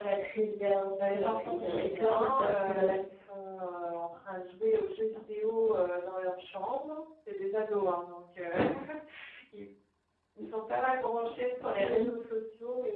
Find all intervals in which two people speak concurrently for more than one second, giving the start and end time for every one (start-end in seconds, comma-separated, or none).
1.1-3.0